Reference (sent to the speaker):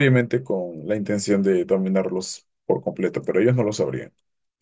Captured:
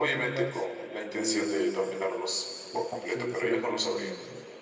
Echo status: present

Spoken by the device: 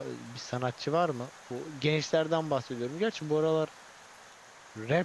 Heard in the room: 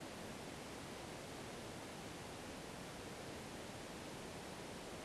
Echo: none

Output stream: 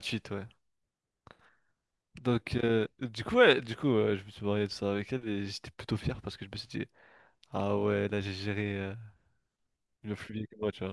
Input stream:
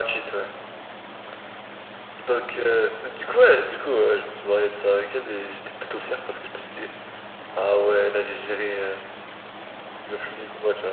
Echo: present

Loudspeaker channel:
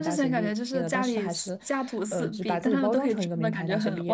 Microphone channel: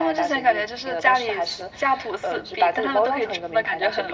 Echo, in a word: present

